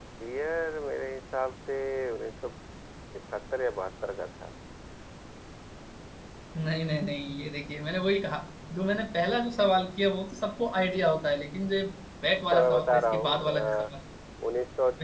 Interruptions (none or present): present